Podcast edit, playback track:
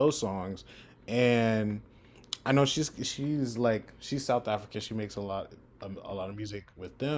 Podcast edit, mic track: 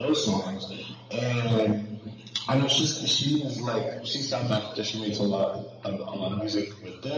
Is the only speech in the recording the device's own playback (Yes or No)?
Yes